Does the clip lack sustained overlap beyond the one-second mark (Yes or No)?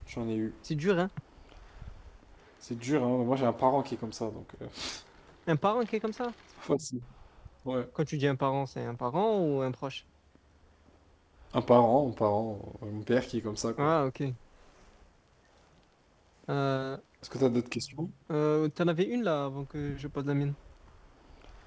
Yes